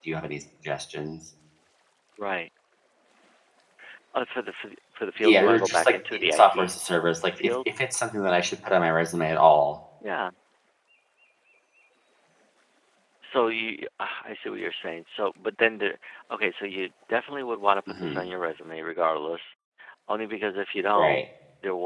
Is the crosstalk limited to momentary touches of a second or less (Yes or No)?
No